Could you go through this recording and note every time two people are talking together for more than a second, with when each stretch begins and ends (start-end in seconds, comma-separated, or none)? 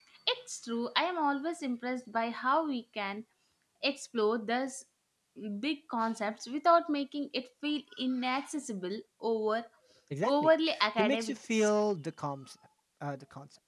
10.2-11.7